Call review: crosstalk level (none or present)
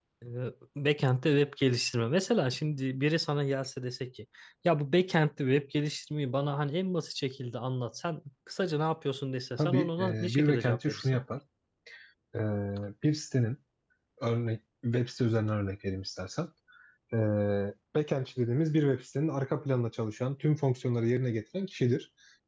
present